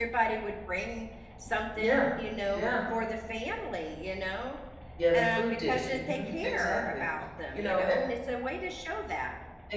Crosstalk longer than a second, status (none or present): present